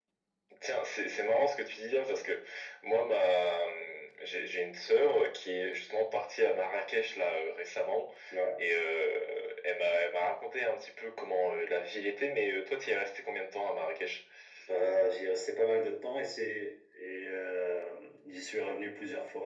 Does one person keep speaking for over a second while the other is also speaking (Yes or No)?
No